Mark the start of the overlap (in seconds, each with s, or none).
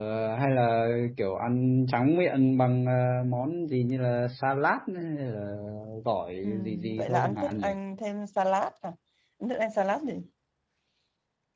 6.4 s